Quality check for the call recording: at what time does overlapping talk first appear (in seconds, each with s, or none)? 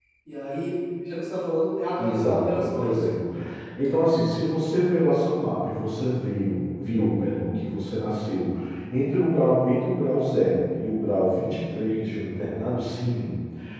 2.0 s